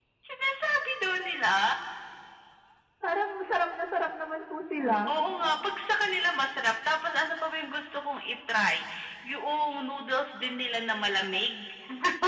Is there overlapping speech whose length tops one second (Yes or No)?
No